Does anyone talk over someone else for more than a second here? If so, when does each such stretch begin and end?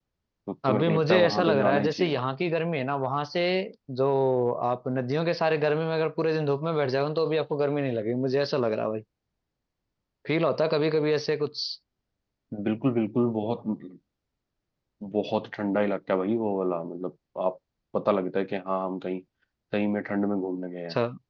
0.7-2.2

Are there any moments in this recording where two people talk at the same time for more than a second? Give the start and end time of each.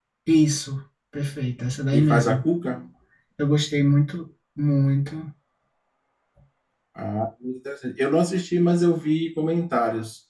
none

